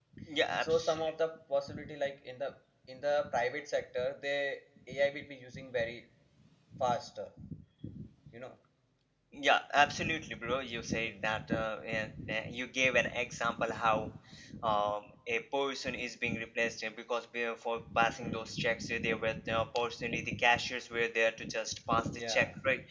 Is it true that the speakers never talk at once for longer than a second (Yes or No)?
Yes